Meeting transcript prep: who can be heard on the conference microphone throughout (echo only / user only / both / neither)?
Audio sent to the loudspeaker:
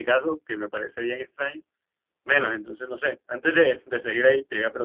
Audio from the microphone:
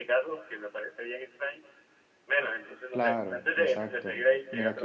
both